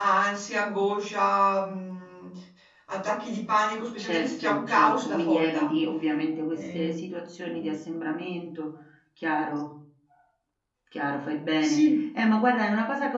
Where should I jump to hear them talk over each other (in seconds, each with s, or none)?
4.0 s